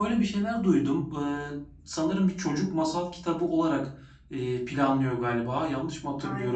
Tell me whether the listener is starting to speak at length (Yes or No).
Yes